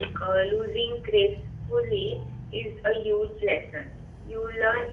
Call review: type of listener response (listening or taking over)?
listening